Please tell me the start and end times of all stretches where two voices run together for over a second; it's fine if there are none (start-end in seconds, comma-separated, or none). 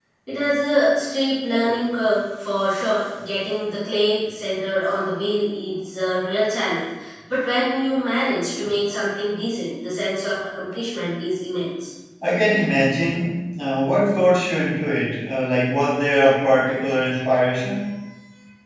none